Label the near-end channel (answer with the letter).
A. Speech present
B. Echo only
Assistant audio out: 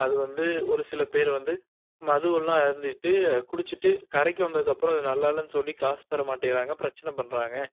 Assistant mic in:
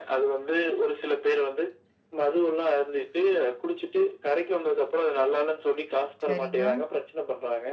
A